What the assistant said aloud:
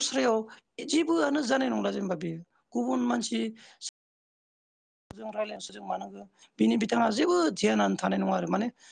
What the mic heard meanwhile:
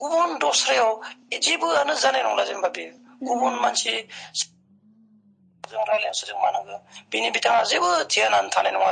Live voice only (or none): नंगौ नंगौ